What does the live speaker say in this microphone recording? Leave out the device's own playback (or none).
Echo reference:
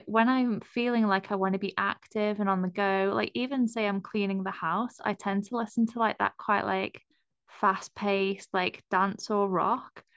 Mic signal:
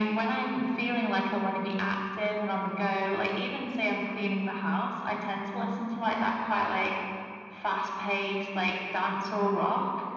none